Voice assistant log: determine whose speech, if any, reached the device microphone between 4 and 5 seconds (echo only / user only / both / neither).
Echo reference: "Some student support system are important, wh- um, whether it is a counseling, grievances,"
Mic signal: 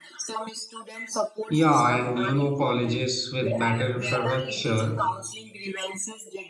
both